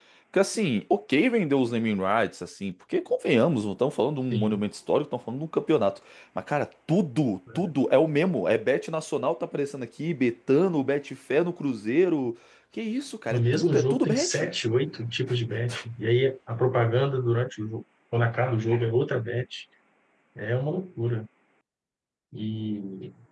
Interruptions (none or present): present